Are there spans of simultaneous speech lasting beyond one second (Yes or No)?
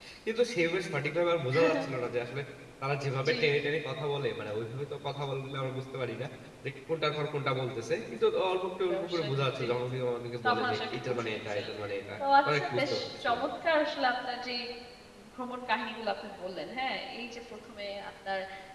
Yes